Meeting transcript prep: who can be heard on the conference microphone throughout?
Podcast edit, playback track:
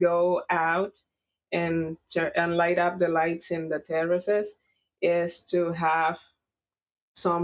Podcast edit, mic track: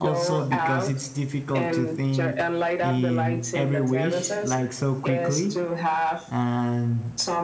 both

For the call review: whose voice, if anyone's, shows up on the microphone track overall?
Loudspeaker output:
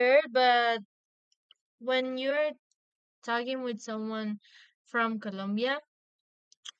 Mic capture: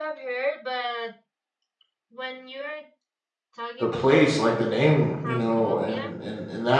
both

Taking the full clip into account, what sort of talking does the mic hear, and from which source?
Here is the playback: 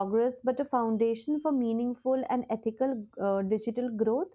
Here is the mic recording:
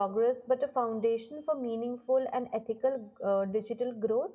echo only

